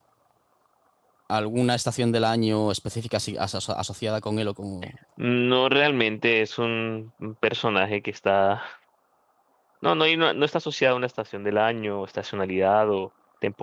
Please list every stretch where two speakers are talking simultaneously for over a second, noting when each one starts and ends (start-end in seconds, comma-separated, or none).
none